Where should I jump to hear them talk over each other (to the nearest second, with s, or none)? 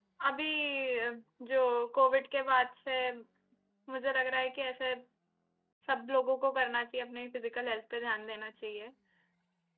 none